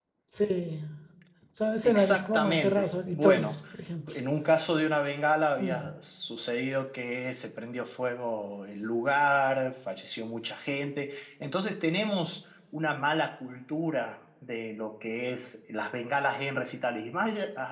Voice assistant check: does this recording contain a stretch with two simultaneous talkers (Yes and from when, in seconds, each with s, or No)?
Yes, from 1.8 s